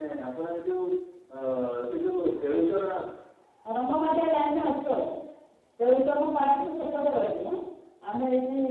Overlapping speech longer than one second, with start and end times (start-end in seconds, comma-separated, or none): none